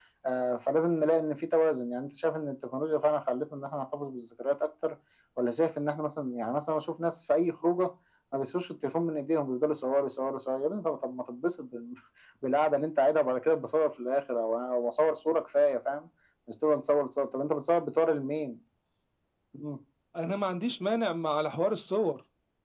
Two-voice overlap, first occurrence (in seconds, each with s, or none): none